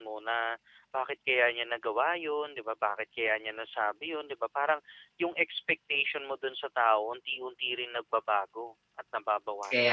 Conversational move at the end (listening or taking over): taking over